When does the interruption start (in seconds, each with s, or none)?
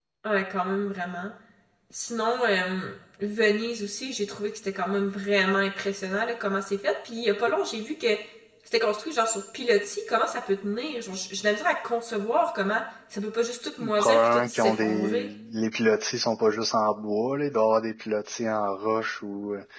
13.8 s